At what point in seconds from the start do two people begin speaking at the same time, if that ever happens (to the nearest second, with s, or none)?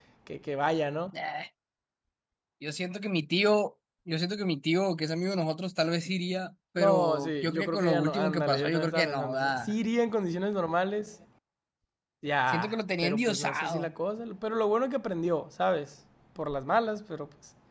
7 s